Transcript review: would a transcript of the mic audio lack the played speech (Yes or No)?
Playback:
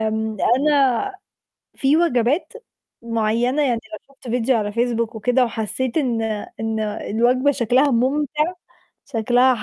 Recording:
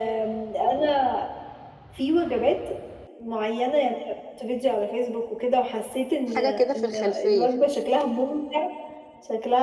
No